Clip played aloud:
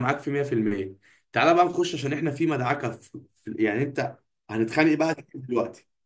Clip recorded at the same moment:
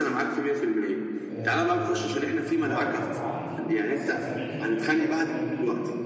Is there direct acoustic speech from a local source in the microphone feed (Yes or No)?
Yes